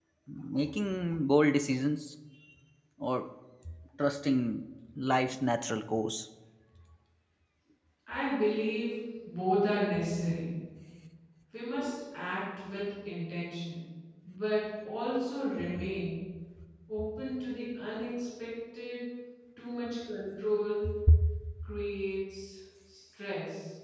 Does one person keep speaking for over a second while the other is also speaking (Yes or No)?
No